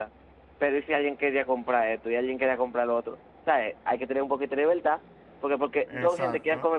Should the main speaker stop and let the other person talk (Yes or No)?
No